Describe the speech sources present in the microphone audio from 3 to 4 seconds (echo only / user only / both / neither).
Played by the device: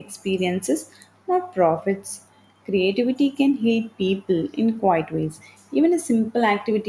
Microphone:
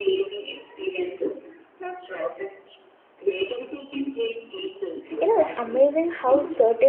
echo only